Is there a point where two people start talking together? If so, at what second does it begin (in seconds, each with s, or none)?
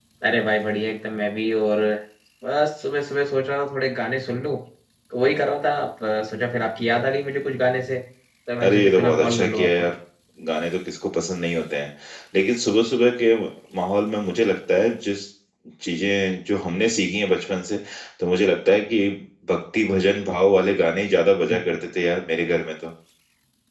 8.6 s